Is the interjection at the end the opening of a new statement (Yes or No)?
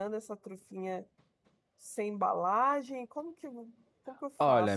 Yes